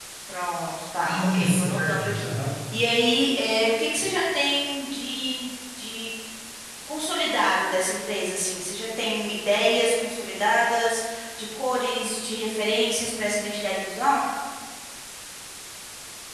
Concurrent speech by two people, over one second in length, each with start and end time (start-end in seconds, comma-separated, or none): 1.0-2.4